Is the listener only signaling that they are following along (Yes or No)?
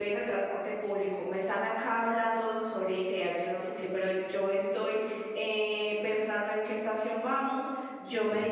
Yes